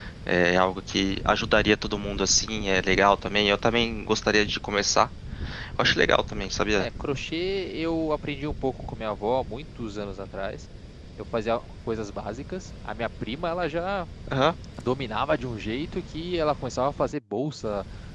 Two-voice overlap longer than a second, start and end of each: none

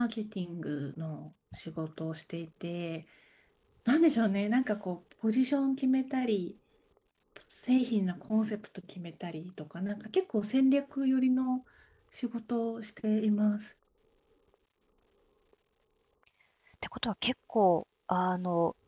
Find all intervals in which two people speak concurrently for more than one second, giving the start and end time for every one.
none

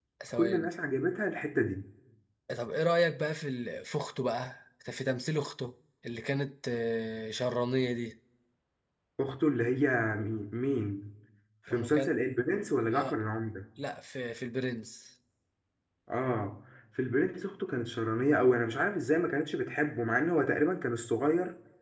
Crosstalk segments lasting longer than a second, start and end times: none

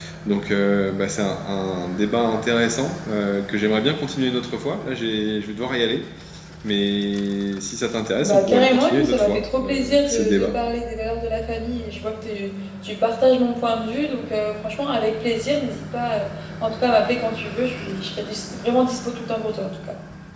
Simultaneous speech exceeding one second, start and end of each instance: 8.2-10.5

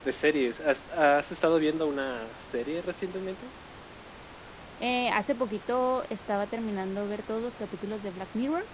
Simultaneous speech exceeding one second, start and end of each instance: none

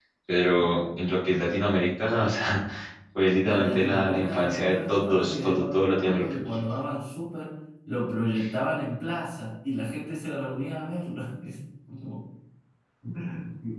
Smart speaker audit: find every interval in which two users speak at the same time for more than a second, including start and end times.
3.4-5.6

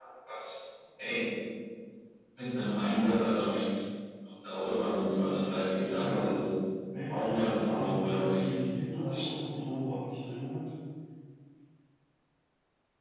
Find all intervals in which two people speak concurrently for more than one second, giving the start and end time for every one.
7.1-8.4

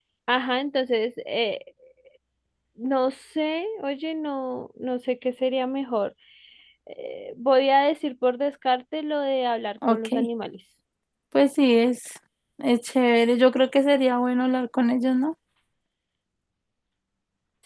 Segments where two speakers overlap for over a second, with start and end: none

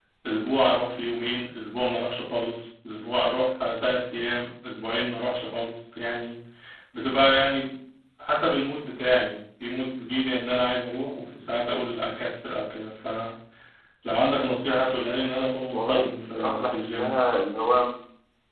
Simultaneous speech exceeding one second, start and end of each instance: 15.7-17.1

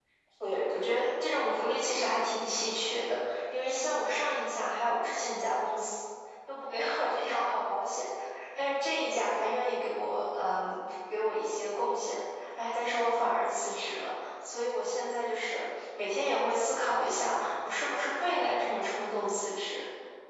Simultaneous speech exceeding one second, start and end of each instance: 0.5-1.7

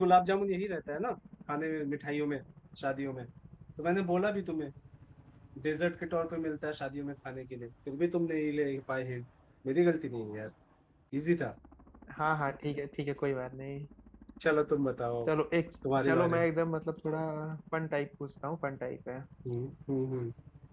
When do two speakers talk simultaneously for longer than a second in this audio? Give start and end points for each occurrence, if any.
none

